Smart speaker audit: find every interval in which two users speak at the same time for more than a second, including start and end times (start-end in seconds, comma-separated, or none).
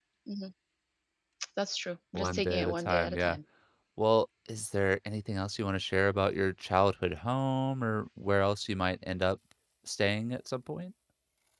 2.1-3.4